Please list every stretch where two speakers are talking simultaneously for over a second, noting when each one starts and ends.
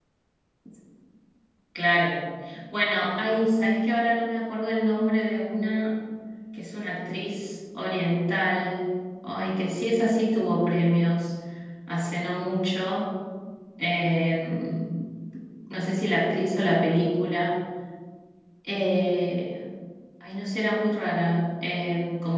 none

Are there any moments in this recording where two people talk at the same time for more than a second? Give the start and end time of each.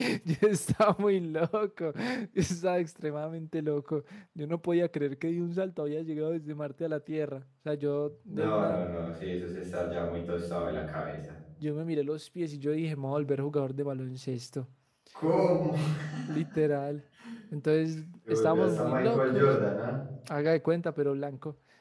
18.3-19.5

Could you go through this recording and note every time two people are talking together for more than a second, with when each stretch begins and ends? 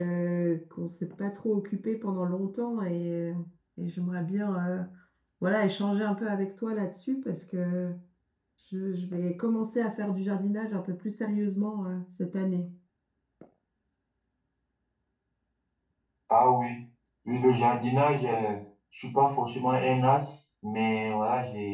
none

